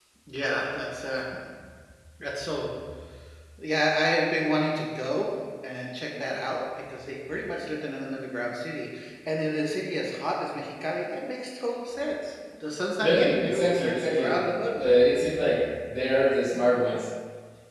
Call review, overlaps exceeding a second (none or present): present